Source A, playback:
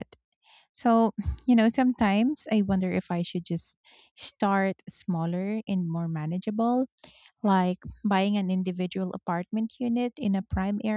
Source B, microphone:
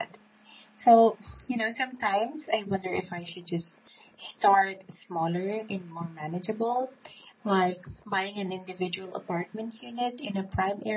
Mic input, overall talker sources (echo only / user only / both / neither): echo only